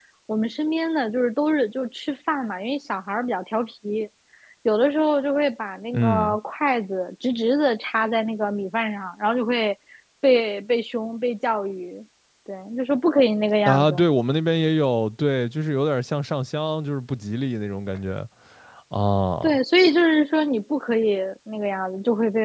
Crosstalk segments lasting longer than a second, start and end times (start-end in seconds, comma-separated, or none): none